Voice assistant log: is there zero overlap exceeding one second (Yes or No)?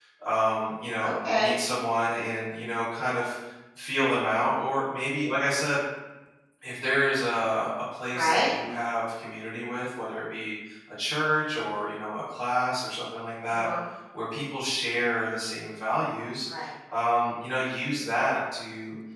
Yes